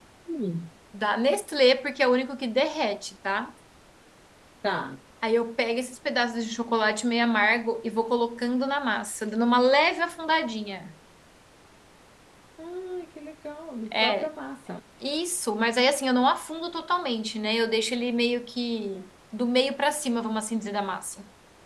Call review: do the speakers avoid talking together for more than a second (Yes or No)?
Yes